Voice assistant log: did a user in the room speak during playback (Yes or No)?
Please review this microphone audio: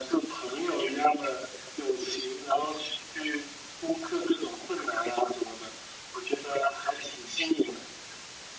No